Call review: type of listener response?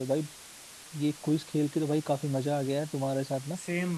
listening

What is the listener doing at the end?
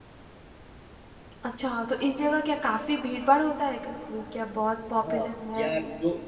taking over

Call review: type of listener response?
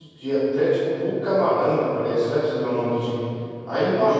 listening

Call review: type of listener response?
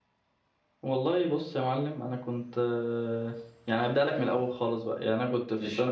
listening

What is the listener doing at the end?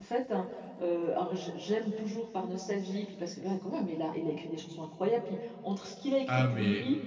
listening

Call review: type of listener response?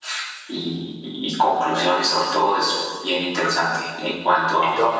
listening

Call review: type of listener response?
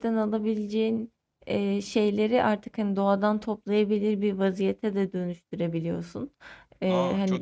taking over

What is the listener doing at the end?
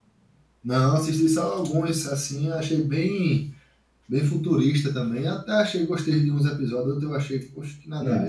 taking over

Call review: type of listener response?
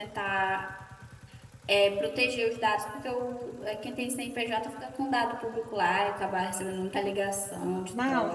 taking over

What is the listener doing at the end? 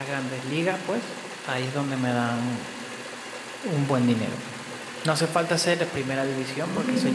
listening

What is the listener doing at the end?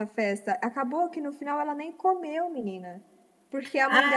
listening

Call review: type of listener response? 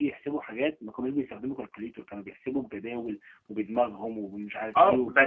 taking over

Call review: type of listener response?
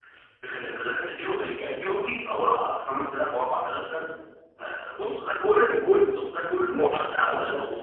taking over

